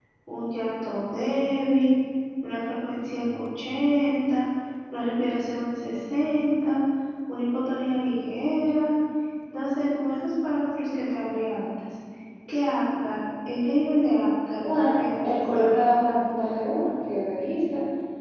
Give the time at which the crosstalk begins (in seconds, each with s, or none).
14.6 s